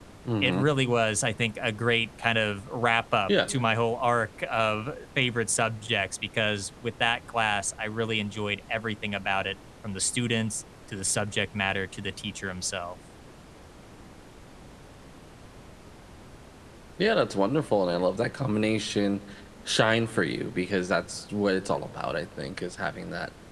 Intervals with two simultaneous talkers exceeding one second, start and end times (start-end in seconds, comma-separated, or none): none